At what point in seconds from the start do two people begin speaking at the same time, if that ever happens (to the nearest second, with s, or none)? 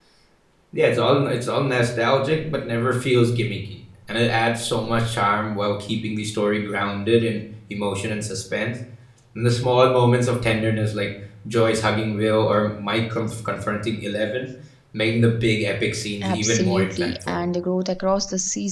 16 s